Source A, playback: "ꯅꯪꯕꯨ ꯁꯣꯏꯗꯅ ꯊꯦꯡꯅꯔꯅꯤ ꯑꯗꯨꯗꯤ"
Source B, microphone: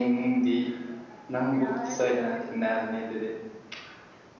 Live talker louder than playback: No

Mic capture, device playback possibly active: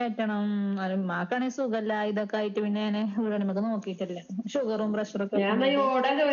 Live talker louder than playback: Yes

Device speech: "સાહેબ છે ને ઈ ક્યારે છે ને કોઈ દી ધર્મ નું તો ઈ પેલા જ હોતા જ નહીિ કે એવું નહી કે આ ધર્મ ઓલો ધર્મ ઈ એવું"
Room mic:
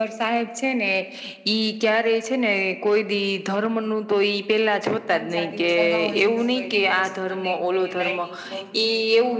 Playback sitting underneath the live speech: No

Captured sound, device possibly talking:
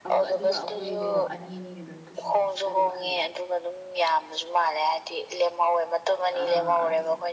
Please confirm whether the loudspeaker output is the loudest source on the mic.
Yes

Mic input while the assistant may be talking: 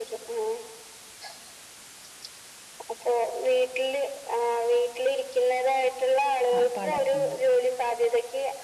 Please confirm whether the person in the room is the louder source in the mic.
No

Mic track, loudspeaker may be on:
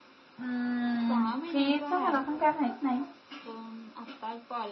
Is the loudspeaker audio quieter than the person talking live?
Yes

